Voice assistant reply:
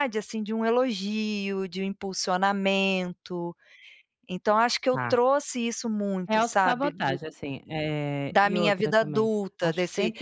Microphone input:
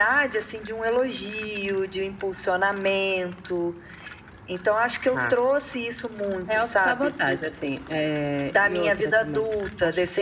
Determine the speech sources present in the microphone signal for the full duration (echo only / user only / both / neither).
echo only